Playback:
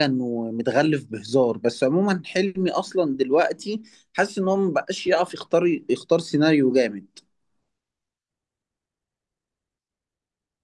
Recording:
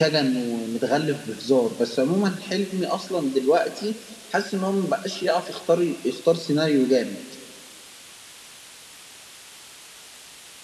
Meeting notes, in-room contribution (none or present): none